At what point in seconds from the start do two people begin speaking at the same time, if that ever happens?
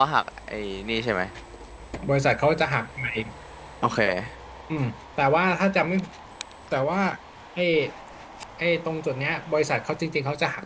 none

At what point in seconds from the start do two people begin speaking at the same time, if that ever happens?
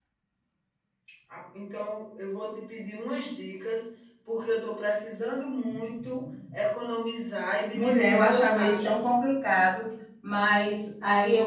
7.7 s

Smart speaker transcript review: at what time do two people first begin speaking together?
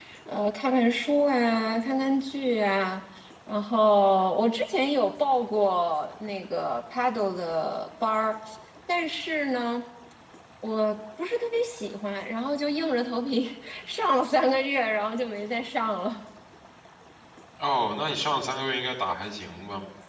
none

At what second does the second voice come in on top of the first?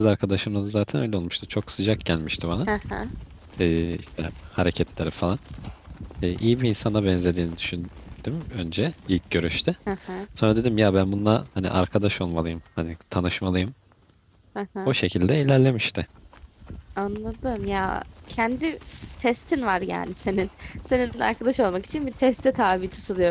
none

